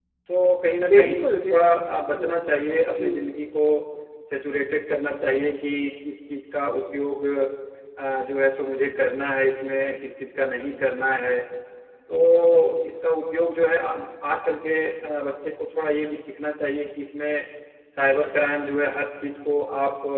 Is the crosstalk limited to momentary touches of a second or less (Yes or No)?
No